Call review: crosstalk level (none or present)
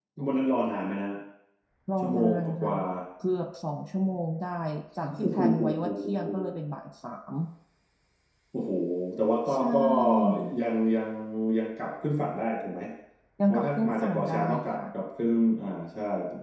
present